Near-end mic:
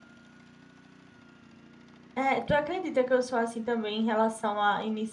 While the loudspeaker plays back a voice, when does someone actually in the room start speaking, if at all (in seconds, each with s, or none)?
2.1 s